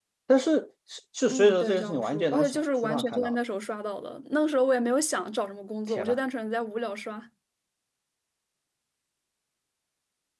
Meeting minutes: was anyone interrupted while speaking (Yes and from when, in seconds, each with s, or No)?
Yes, from 1.3 s